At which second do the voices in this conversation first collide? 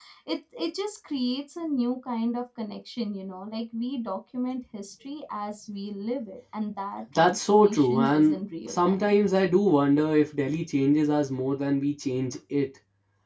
7.2 s

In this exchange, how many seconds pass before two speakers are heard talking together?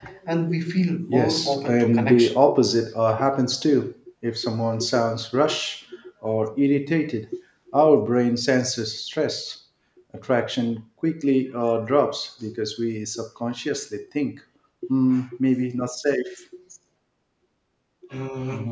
1.1 s

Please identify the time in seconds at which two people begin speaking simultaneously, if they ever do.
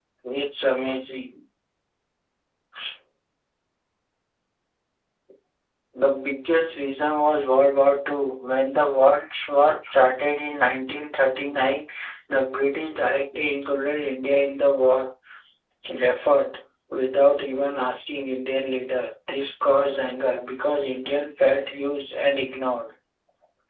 none

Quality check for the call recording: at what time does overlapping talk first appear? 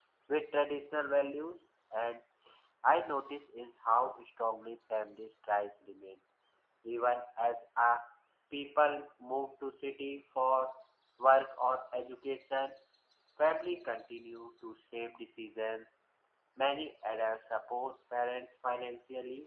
none

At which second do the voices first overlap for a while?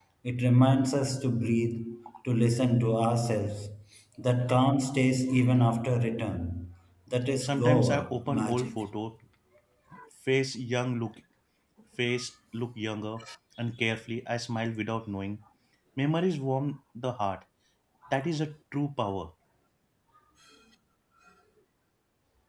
7.4 s

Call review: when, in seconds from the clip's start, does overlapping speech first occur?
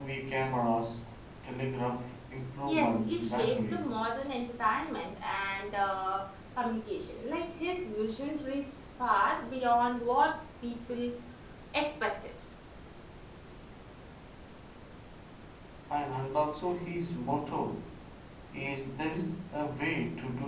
2.7 s

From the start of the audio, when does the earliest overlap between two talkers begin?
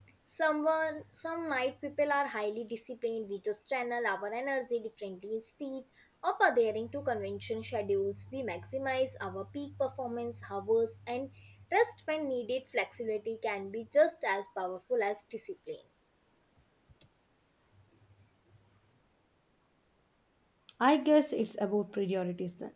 none

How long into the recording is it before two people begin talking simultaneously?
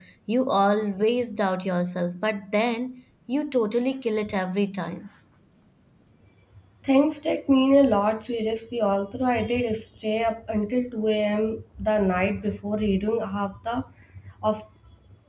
none

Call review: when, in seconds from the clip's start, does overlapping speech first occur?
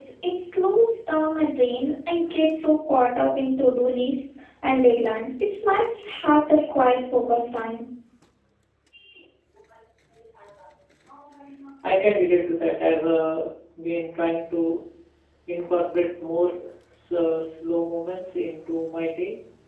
none

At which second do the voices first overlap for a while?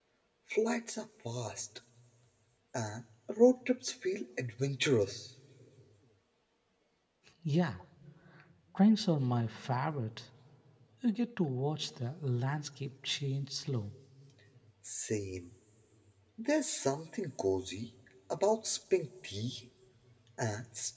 none

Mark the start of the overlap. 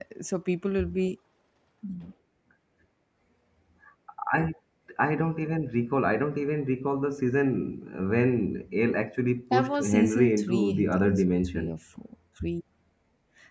9.5 s

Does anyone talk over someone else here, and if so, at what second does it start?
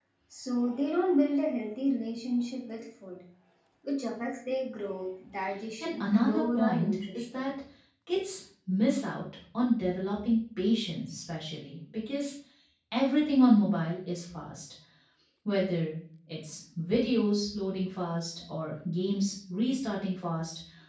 5.8 s

